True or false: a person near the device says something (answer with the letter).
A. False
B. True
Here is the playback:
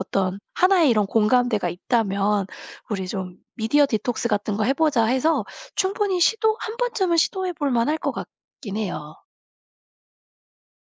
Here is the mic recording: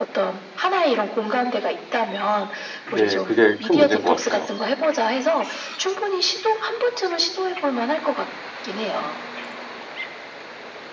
B